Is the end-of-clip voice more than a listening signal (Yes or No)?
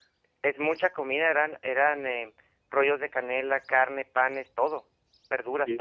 Yes